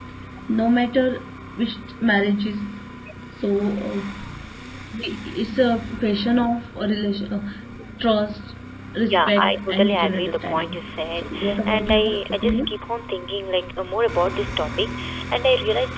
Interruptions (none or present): present